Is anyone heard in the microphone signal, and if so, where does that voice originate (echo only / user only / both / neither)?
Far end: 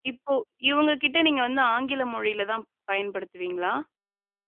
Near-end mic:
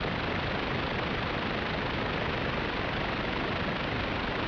neither